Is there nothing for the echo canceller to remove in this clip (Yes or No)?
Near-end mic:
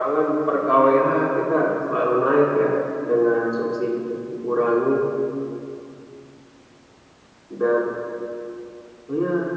No